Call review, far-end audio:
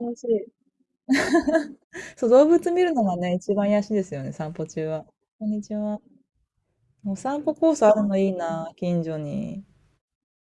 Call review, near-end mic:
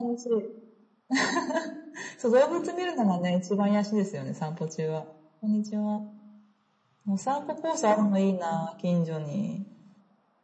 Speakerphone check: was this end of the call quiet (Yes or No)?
Yes